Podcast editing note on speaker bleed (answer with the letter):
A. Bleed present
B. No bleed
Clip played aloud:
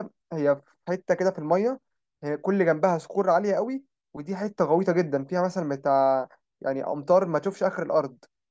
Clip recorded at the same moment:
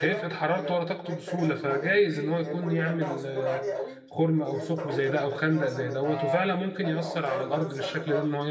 A